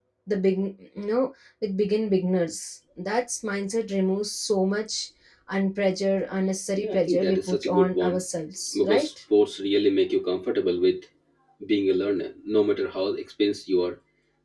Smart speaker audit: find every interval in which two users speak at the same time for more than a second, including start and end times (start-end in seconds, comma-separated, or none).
6.8-8.2